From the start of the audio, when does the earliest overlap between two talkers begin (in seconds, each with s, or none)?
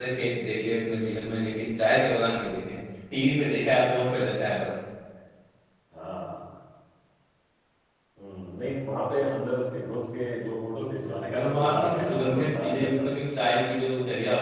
11.3 s